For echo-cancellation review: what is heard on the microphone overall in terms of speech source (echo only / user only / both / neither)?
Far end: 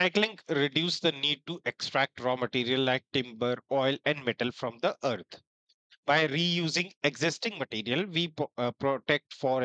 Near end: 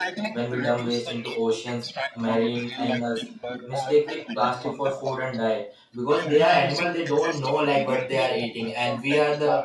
both